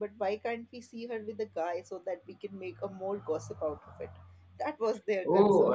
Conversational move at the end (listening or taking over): taking over